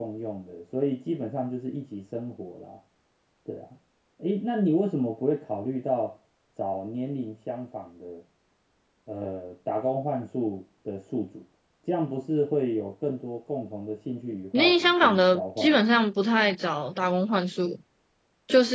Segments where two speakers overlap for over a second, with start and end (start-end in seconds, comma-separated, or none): 14.6-15.8